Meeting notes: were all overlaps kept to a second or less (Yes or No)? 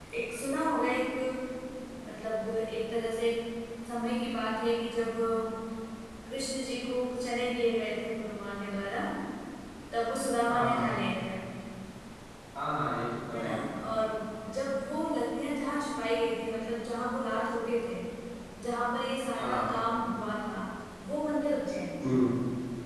Yes